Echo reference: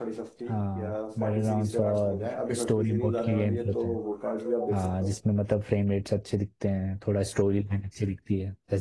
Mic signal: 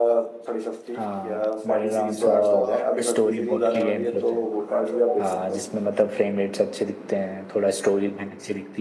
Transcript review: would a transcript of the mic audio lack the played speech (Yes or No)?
No